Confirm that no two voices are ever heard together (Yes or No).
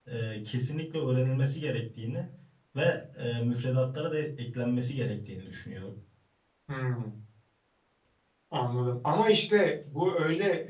Yes